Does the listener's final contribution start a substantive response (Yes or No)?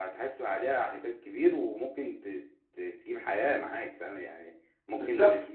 No